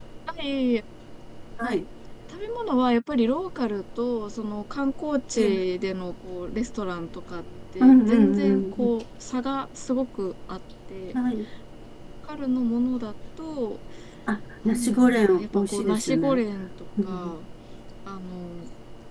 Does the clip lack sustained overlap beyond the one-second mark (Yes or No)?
No